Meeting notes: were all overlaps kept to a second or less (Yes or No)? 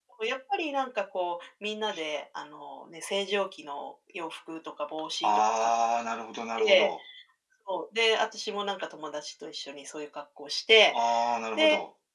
Yes